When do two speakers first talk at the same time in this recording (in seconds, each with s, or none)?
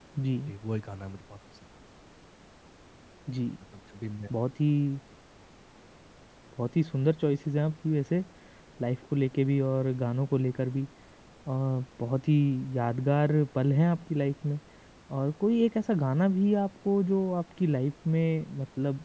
none